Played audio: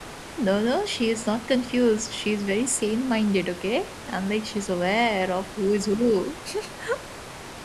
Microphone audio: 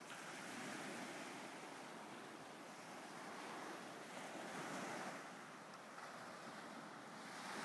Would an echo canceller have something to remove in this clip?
No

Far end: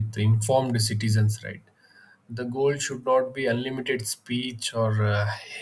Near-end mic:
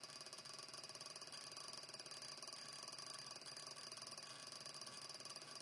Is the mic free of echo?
Yes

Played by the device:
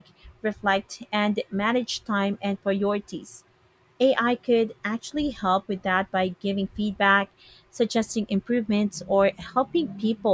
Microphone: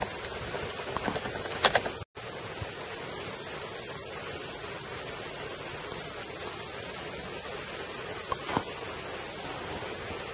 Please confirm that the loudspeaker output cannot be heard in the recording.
Yes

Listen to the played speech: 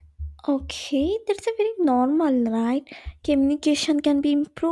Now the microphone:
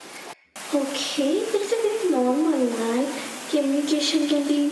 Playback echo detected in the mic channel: Yes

